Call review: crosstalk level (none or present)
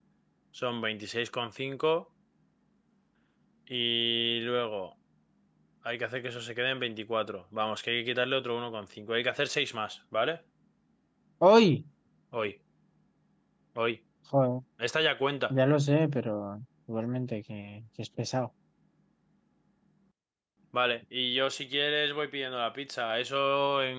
none